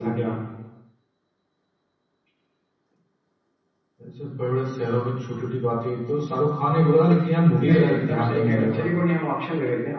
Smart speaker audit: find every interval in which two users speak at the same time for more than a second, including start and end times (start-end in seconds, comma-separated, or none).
7.6-8.8